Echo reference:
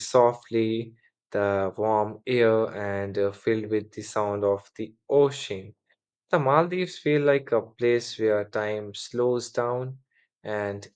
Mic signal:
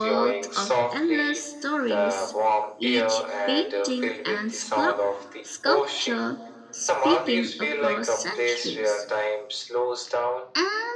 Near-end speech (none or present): present